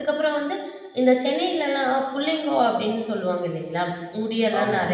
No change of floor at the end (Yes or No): Yes